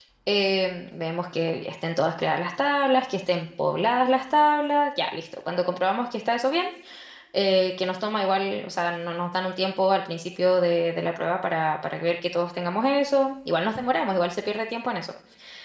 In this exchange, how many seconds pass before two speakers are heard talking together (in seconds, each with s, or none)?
none